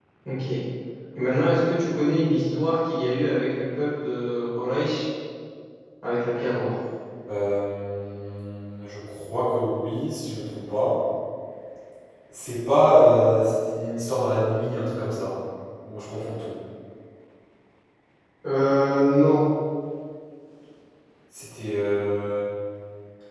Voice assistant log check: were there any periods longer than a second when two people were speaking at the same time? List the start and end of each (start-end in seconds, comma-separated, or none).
none